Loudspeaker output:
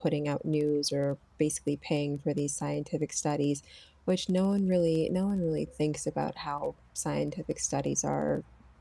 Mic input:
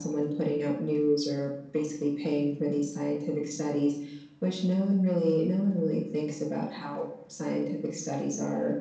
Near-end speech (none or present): none